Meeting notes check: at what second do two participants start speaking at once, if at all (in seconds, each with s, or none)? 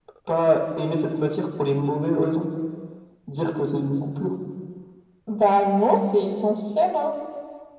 none